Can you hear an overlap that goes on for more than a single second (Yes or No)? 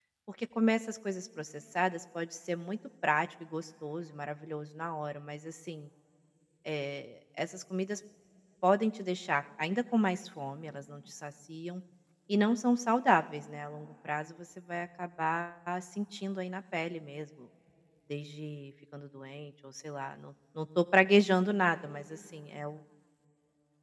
No